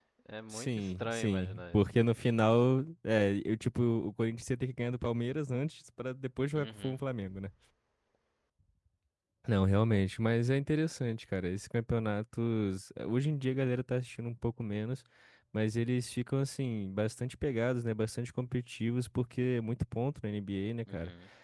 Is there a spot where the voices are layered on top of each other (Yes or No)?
Yes